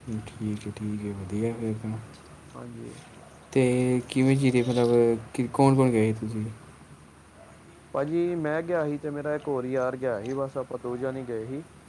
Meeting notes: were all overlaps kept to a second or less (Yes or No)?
Yes